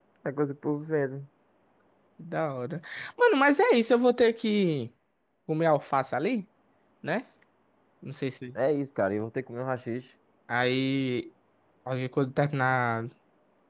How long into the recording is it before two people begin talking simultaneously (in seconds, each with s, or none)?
none